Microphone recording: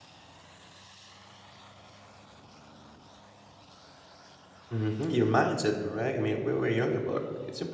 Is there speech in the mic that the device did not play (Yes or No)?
Yes